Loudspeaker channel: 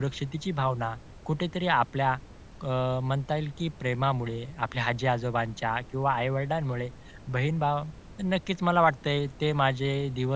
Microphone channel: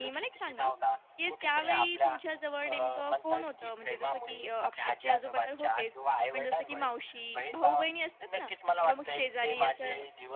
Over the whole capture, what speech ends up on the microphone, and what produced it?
both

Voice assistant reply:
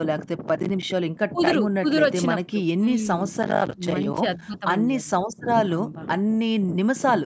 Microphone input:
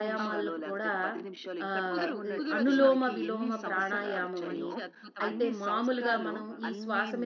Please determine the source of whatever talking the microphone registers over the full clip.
both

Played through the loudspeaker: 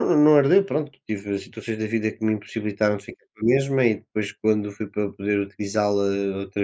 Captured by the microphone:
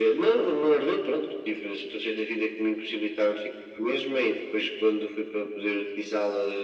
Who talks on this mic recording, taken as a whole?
echo only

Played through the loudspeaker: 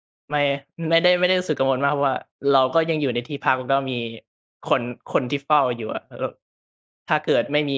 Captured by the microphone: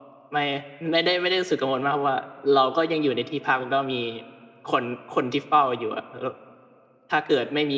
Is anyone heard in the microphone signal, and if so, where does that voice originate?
echo only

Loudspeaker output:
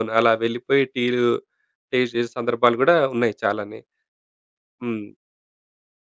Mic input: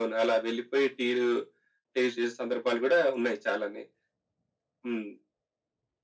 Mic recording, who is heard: echo only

